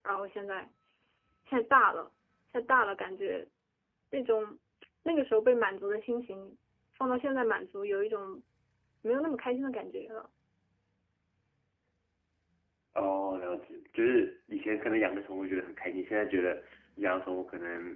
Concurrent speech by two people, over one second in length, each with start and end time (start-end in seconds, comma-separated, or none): none